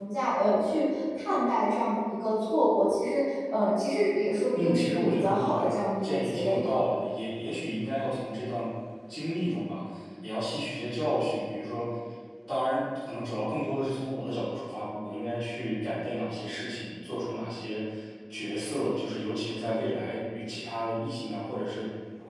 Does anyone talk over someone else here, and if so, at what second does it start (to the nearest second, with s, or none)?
5 s